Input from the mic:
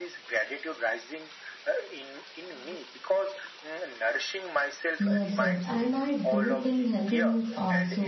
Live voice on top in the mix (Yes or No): Yes